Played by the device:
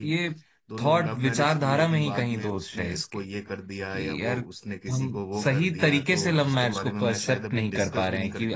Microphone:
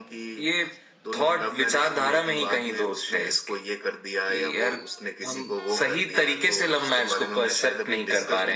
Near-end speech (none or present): none